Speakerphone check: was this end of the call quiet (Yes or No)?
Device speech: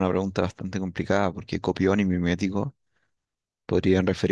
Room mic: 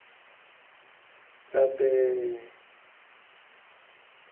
No